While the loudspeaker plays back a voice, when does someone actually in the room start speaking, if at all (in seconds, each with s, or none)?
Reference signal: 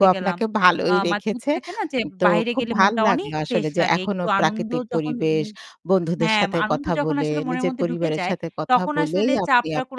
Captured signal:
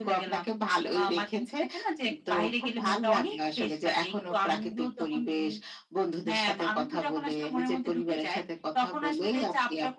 none